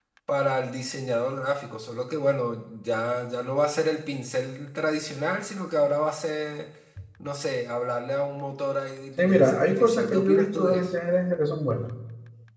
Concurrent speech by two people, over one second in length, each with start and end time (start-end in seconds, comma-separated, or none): 9.2-10.9